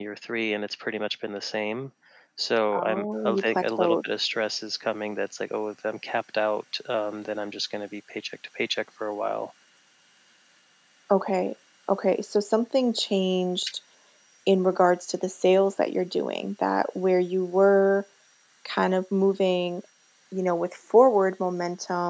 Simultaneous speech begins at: 2.8 s

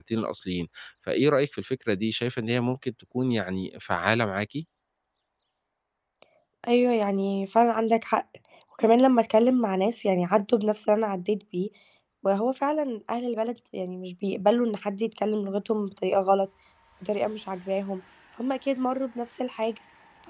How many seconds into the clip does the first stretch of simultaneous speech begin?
none

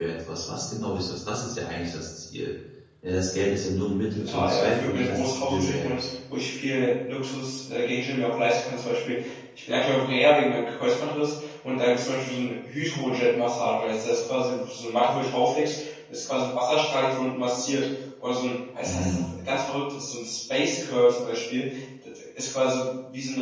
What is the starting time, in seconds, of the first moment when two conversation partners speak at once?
4.1 s

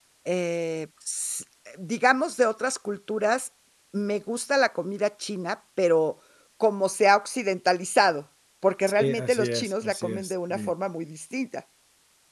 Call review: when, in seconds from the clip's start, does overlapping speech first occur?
9.0 s

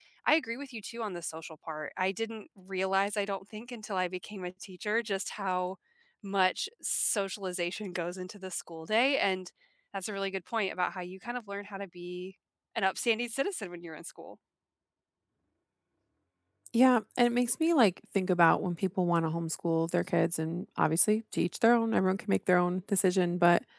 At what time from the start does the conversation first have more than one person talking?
none

